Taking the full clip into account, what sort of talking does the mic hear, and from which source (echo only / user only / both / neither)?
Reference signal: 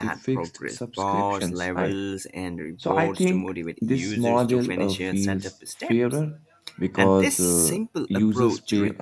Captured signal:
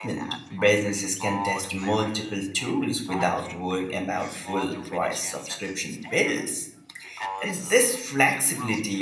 both